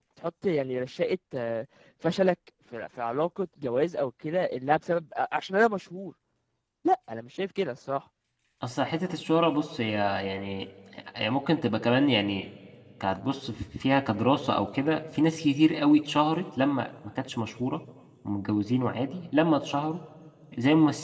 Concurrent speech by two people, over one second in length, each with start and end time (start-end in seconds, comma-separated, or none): none